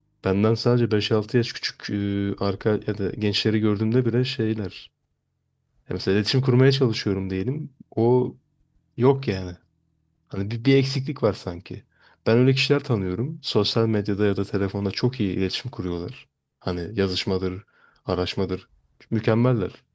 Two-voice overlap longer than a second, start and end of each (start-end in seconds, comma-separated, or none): none